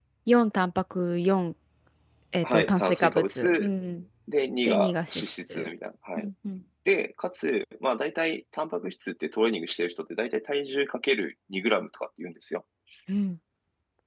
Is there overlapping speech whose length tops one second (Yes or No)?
Yes